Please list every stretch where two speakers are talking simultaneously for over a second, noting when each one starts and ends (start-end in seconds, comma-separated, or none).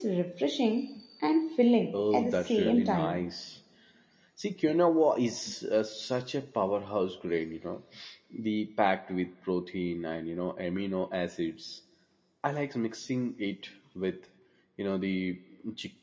1.9-3.3